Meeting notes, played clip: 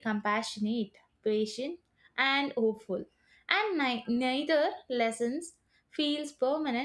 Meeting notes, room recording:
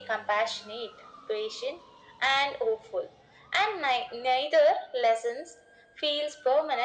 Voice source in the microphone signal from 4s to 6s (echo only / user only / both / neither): echo only